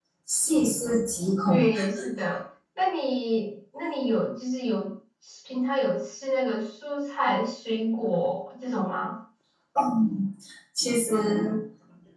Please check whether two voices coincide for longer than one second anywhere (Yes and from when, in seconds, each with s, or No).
No